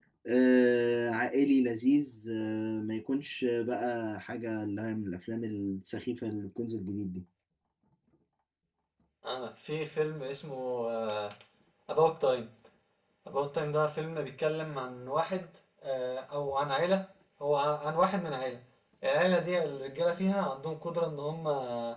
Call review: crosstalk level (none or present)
none